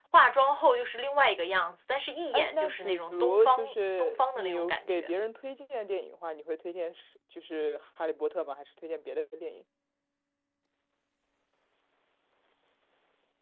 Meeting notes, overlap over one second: present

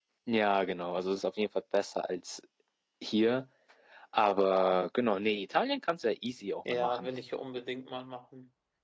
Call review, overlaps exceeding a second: none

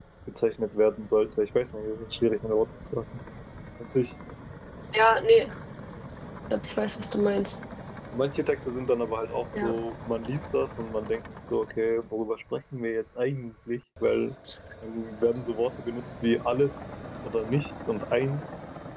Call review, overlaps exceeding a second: none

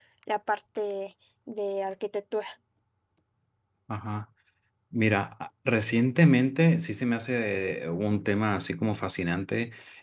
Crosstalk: none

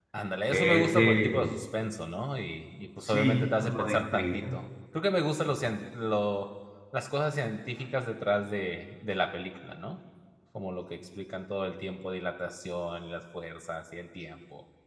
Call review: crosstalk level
present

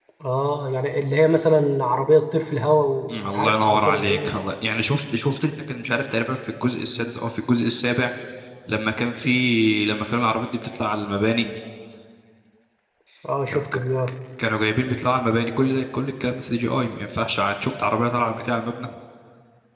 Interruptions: present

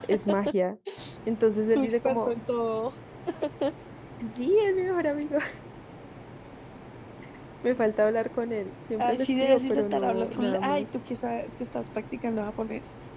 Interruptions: present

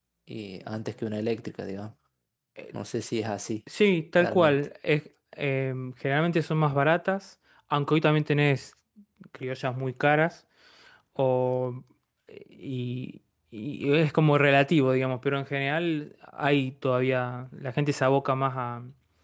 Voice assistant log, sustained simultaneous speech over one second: none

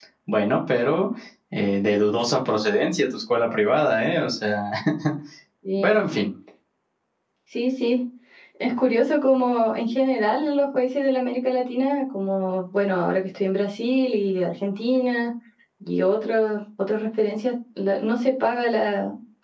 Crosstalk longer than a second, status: none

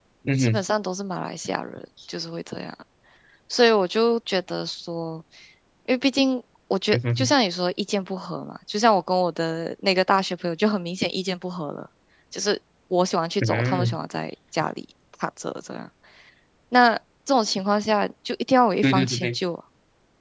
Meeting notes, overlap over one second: none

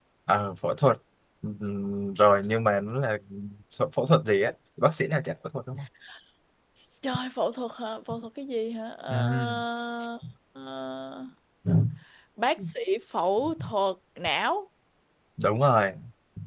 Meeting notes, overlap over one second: none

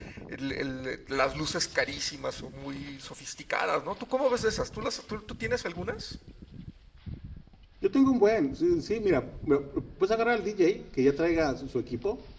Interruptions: none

